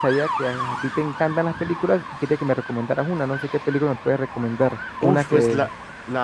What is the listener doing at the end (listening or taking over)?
taking over